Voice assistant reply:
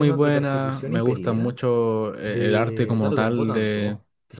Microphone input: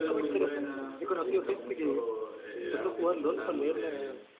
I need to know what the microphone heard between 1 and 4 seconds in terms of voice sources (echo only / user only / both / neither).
both